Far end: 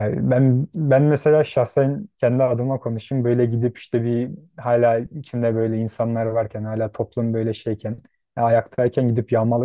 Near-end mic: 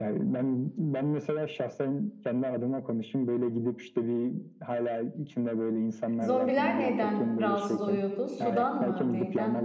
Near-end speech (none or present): present